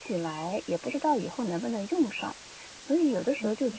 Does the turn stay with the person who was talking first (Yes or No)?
Yes